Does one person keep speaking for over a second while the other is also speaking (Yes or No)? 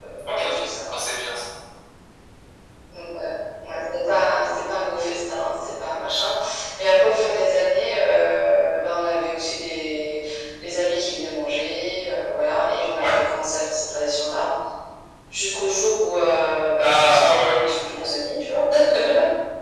Yes